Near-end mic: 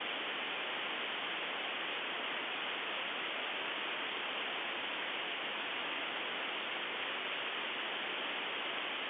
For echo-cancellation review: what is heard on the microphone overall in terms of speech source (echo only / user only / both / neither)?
neither